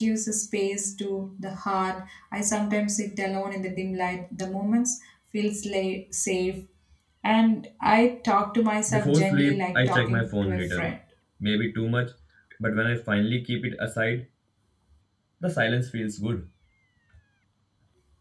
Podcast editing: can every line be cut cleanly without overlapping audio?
No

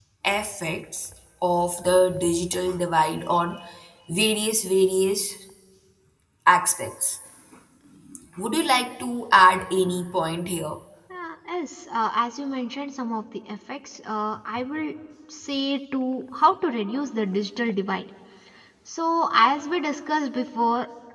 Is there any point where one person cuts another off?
No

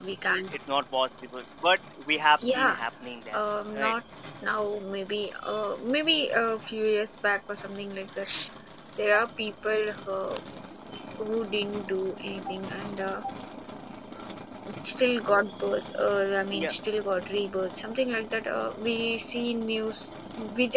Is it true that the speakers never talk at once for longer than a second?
Yes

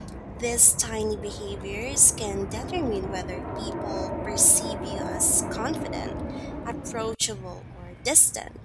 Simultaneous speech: No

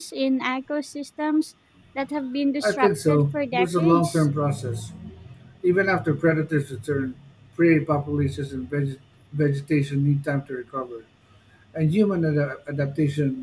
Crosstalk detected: Yes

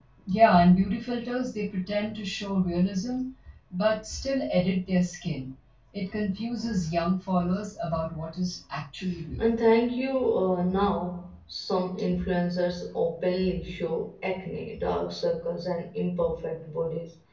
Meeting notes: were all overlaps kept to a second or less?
Yes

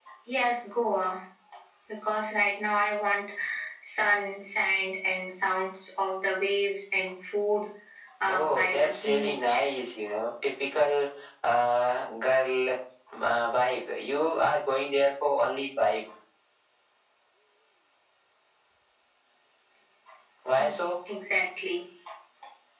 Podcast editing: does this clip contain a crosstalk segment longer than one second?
Yes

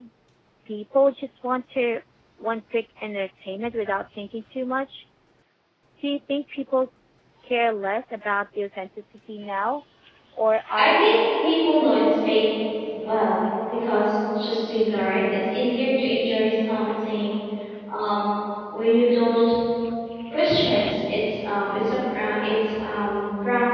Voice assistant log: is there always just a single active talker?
No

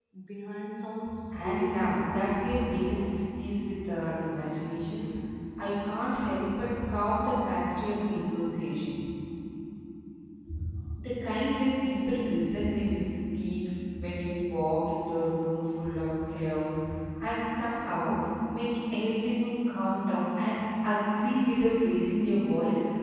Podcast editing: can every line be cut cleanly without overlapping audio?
No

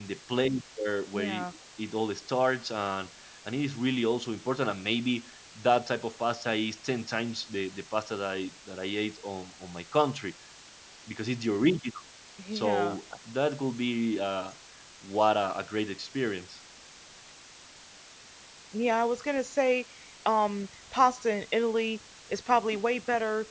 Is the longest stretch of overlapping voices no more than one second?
Yes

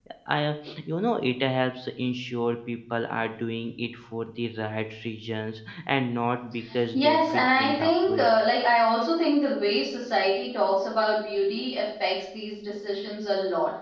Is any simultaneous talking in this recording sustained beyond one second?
Yes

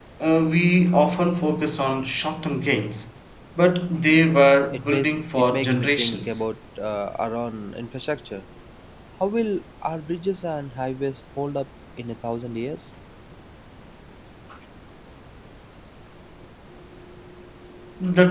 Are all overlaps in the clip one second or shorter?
No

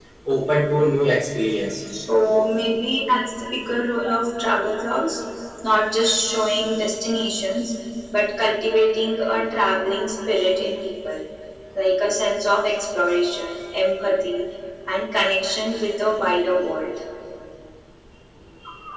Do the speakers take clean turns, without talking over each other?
Yes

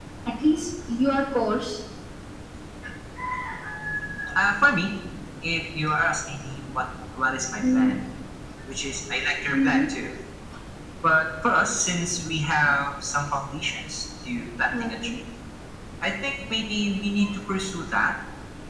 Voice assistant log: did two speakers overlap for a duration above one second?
No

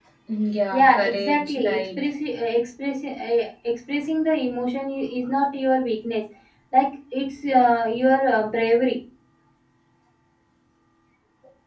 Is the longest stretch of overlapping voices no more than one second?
No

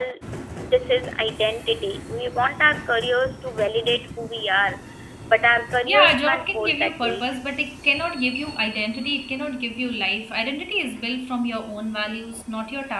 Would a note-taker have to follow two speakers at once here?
Yes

